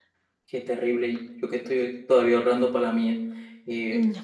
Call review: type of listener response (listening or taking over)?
listening